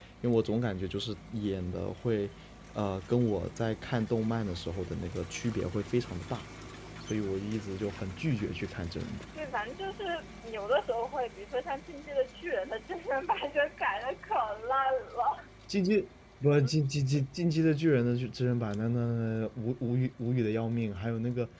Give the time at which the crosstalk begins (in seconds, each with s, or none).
none